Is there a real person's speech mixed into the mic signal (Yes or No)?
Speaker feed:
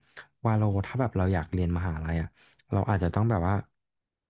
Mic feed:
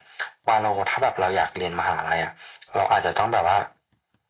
No